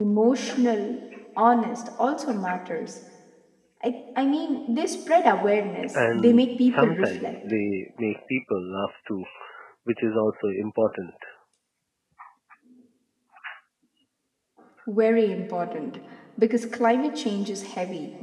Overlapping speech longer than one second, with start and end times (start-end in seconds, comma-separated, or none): 5.9-7.3